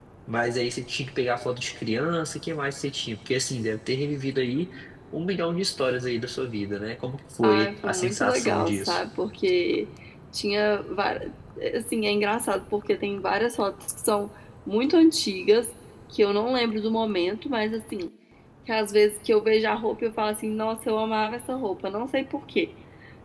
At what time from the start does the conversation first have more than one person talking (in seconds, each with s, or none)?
7.4 s